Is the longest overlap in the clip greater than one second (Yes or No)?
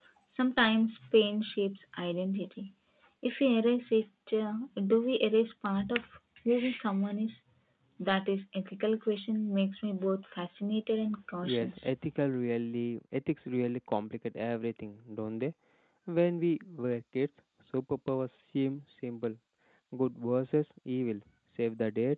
No